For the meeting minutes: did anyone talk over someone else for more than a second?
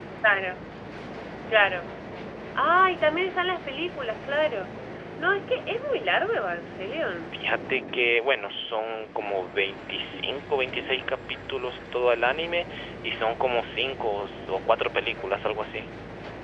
No

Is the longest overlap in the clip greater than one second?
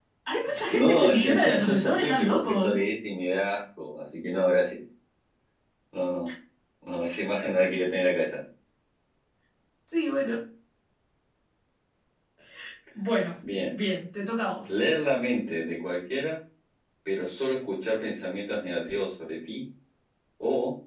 Yes, from 0.7 s

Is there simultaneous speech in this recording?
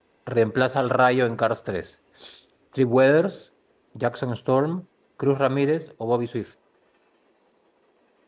No

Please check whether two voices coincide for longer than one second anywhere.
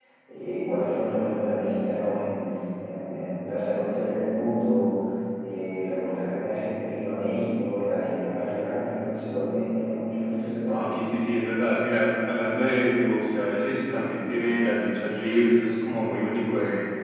No

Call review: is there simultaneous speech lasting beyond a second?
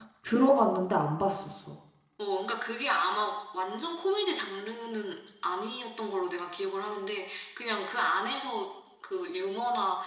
No

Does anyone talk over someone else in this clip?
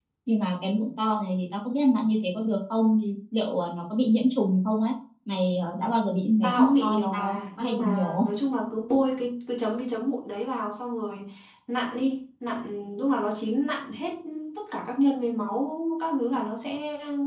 Yes, from 6.4 s

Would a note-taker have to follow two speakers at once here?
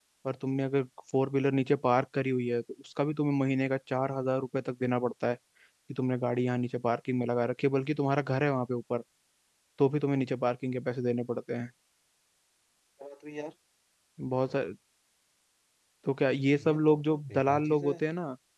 Yes, from 16.7 s

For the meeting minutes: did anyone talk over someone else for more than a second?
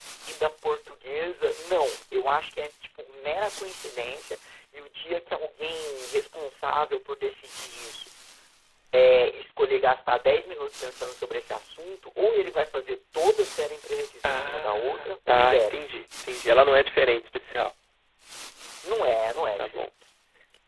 Yes, from 14.2 s

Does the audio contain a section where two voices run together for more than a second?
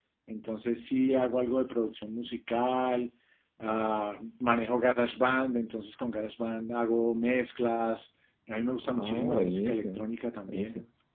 Yes, from 8.8 s

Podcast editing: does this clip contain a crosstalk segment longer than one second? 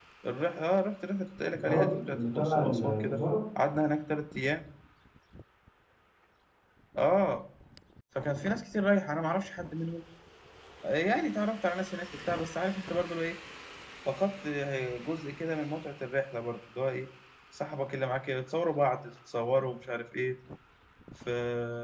Yes, from 1.5 s

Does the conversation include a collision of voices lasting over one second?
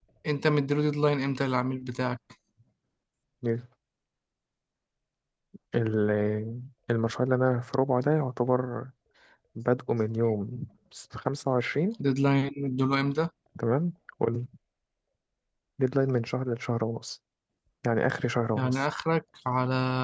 No

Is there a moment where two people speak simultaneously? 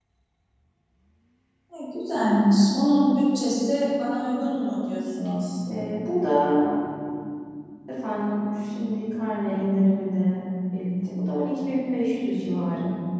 No

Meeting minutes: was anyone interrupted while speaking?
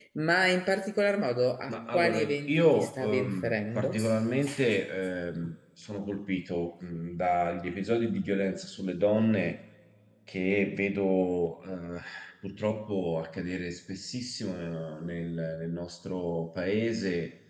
Yes, from 1.7 s

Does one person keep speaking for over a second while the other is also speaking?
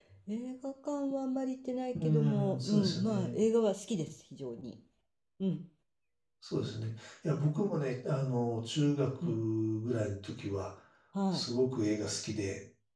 Yes, from 1.9 s

